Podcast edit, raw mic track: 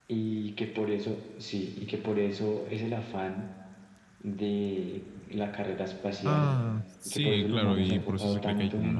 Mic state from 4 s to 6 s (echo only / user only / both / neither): echo only